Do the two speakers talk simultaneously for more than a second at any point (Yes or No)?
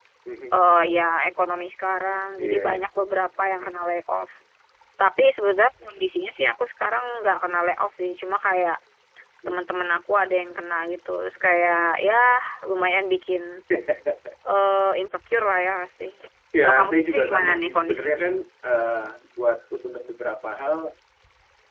Yes